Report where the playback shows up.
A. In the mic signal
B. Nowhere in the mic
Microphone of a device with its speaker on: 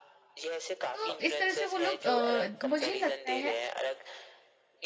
A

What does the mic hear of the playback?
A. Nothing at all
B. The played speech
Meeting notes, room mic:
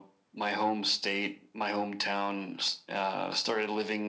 B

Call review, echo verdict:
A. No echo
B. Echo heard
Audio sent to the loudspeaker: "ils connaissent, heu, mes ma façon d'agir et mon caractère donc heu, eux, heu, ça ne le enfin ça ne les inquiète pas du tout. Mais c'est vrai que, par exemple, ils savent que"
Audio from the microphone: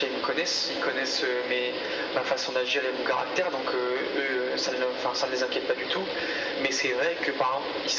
B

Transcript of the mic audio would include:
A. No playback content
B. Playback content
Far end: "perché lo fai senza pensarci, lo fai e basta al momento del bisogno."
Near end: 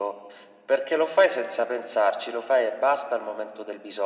B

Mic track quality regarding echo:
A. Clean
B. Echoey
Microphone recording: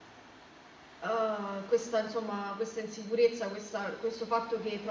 A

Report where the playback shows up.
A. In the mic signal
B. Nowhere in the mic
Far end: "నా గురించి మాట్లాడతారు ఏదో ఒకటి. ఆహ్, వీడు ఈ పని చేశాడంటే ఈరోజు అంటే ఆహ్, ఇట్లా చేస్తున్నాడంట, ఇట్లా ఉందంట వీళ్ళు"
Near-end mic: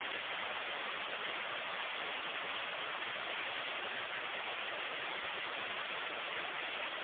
B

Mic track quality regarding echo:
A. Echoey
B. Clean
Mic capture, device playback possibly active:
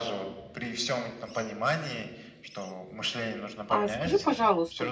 A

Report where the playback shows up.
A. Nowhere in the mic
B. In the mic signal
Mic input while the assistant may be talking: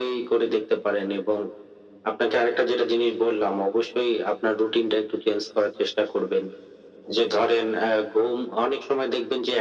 B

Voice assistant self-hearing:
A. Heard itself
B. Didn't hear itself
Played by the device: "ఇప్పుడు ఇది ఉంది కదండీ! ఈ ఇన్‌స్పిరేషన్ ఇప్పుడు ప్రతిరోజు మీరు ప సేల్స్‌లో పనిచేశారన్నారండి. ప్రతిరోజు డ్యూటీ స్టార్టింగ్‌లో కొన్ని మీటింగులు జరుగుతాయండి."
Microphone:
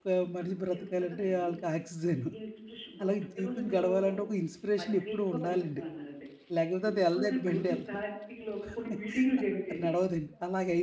A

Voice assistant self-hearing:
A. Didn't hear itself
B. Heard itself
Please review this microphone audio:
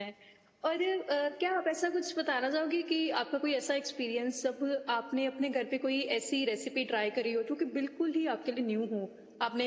A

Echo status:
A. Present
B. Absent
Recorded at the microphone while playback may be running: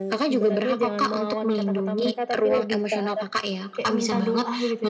A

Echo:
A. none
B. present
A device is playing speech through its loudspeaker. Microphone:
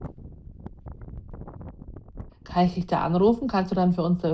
A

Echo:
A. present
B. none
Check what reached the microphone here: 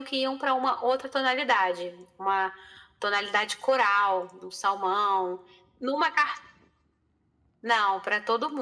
A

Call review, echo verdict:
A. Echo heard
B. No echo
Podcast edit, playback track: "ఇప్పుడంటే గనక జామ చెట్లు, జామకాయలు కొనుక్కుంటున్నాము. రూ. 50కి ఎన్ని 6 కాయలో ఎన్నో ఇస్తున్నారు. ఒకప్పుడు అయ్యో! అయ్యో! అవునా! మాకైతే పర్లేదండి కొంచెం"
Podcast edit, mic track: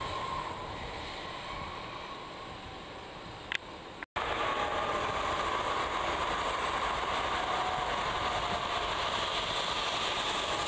B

